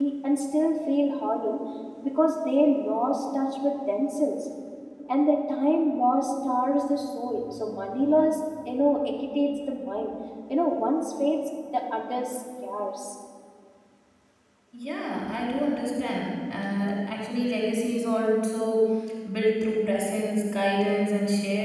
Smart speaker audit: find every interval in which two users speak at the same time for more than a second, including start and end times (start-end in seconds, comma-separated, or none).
none